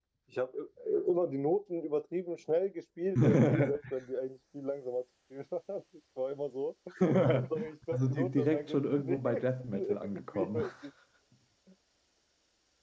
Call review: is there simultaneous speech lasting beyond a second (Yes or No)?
Yes